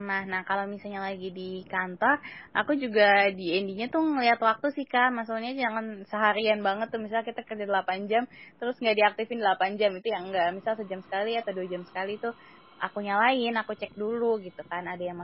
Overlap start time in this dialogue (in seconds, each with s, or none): none